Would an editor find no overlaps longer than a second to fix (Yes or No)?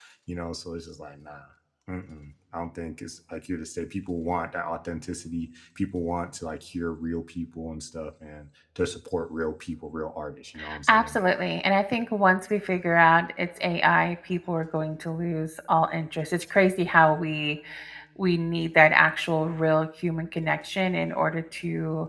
Yes